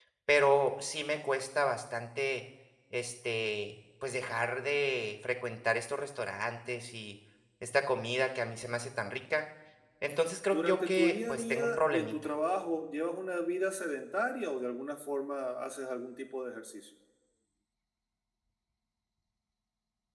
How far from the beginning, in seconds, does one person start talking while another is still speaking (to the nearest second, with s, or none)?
11 s